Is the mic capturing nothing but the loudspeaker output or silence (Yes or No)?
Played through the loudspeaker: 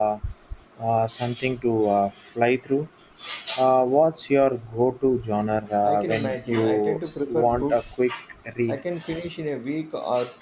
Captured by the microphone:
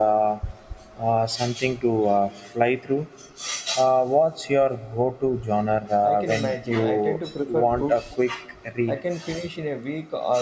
Yes